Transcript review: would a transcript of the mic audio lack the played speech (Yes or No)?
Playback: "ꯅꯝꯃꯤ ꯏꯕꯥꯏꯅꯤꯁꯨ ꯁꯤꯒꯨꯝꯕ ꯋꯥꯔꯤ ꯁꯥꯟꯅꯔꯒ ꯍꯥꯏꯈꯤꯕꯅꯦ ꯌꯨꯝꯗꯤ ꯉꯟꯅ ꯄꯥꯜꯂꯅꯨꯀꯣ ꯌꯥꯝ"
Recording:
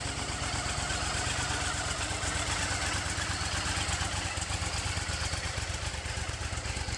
Yes